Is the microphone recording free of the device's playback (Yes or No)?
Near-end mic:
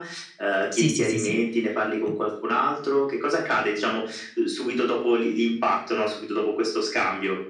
No